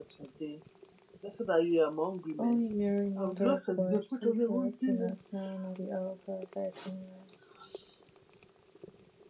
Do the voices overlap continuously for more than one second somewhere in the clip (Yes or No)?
Yes